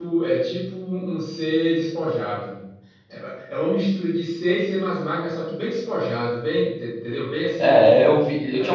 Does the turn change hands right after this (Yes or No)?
Yes